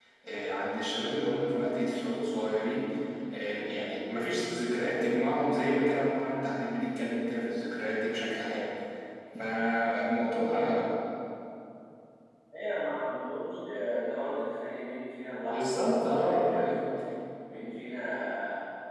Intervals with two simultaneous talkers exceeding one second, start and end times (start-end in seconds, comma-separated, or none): 15.4-16.7